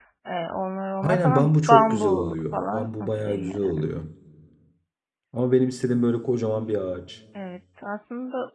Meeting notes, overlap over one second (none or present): present